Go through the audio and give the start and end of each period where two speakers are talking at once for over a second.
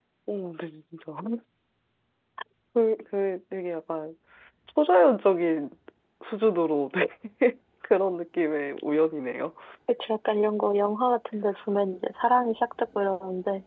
none

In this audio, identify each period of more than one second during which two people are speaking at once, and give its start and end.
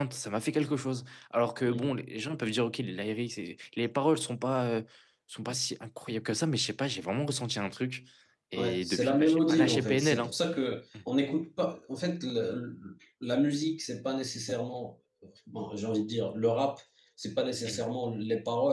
8.6-10.3

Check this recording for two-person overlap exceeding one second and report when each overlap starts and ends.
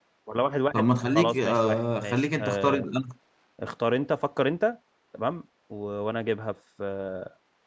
0.7-2.8

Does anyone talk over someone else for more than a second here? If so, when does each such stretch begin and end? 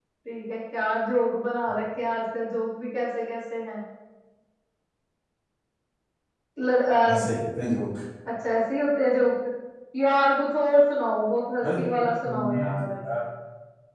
11.6-12.9

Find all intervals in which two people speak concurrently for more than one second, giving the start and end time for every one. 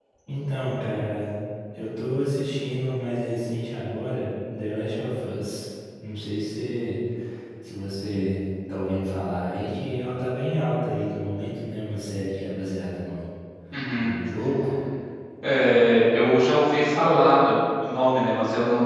none

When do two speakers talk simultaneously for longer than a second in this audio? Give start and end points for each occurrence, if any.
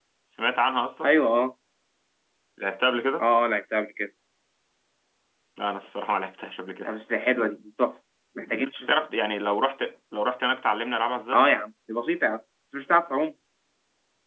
none

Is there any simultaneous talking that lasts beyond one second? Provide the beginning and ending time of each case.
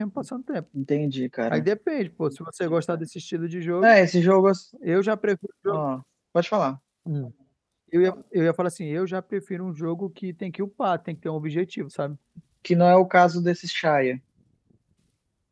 none

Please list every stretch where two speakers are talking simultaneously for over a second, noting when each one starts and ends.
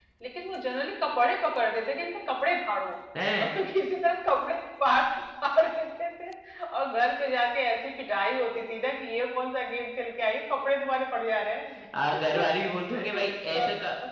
none

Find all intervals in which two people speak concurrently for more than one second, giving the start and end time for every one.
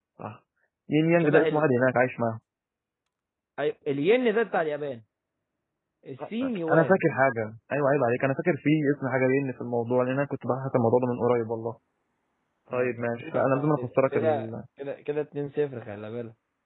12.7-14.5

